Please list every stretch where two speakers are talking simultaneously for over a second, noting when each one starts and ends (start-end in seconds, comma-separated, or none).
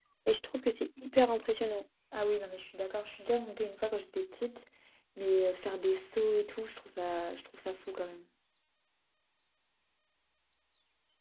none